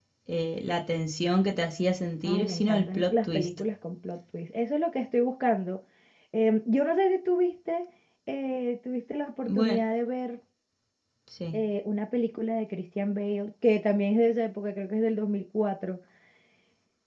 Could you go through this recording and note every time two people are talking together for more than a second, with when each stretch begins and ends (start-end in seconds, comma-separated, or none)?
2.2-3.5